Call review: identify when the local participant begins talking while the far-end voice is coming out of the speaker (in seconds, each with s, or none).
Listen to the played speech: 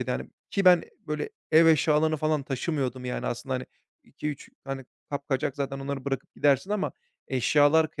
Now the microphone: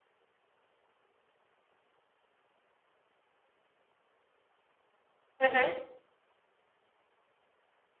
5.4 s